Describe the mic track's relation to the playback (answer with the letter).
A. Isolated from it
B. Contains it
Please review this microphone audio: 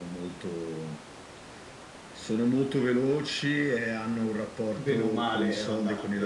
B